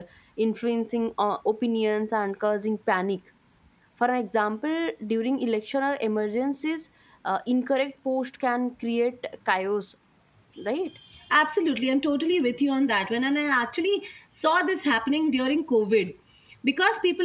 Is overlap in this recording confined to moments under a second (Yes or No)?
Yes